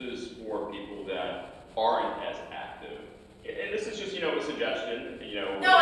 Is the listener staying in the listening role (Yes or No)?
No